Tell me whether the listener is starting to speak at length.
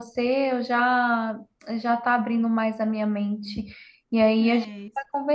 No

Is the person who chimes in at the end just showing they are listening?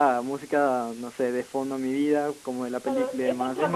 No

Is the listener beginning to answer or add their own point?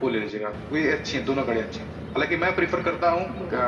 No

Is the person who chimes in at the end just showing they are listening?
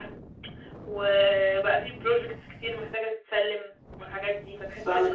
No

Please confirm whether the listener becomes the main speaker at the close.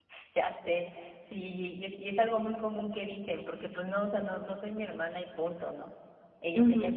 Yes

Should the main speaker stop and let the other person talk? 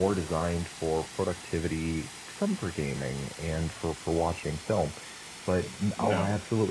No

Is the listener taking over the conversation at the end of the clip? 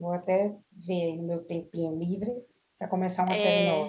Yes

